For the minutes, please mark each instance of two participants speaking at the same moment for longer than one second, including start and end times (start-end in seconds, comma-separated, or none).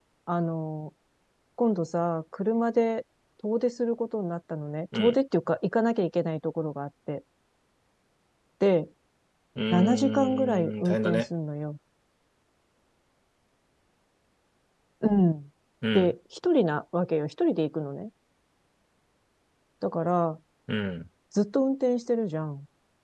9.7-11.3